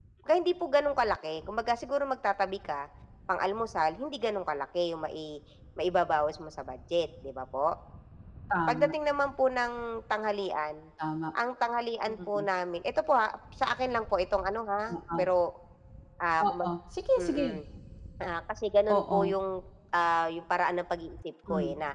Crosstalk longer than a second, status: none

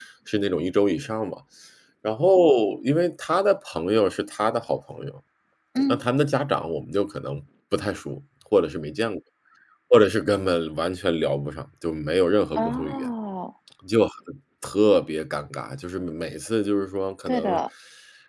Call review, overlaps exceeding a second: none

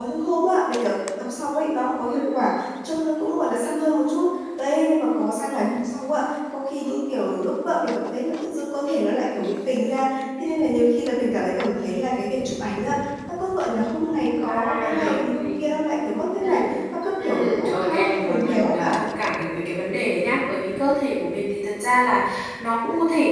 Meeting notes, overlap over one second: present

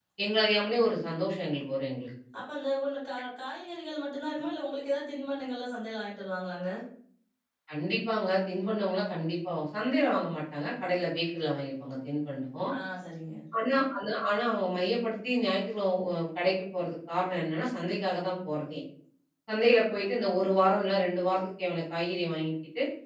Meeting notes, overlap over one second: none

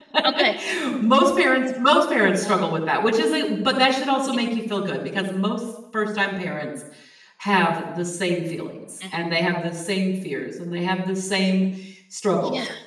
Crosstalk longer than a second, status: none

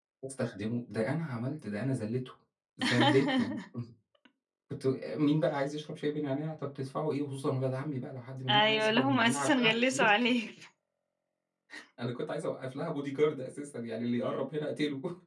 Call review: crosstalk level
present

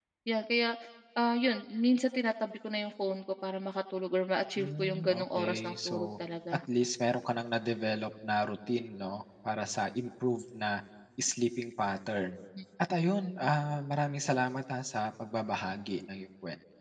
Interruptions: present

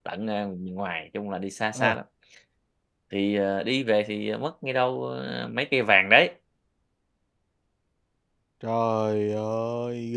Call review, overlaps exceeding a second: none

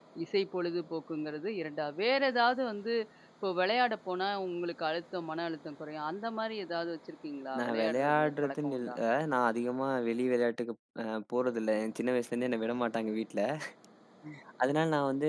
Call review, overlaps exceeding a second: present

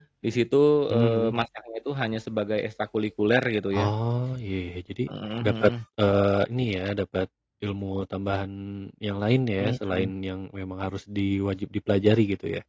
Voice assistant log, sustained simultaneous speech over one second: none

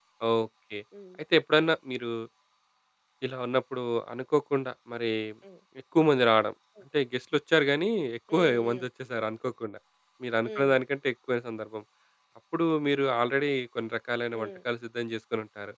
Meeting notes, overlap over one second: none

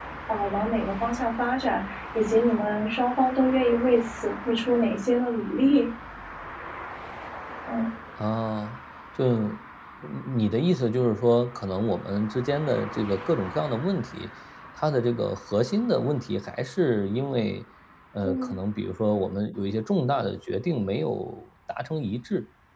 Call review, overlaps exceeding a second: none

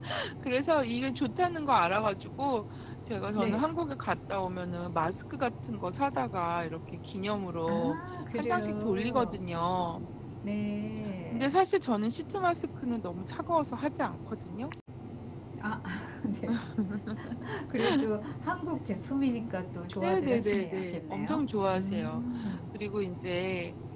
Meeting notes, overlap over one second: present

